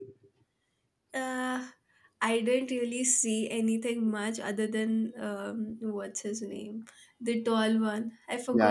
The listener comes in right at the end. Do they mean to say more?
Yes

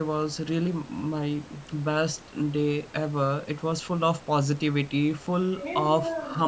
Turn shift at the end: No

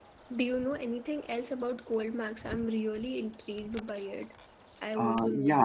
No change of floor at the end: No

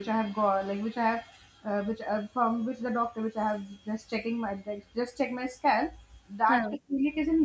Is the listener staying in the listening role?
Yes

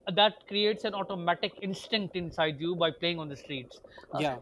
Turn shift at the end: No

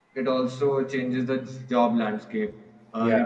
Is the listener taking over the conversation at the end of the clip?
No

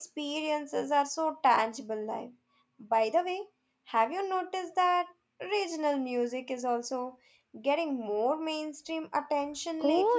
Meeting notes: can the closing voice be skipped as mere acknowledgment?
No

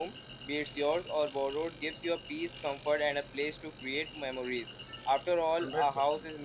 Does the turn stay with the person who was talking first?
Yes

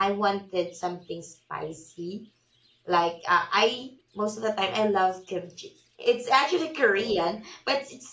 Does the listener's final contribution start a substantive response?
No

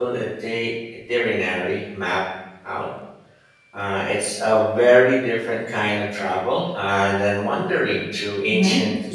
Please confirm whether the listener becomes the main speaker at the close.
Yes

